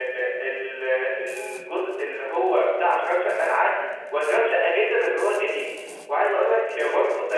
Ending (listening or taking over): listening